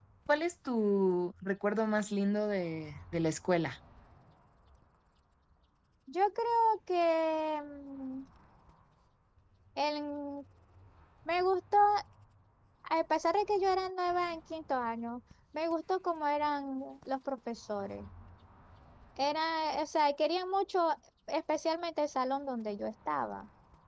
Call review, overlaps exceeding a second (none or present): none